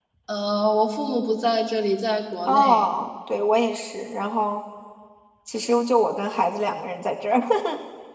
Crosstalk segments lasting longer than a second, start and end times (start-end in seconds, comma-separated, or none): none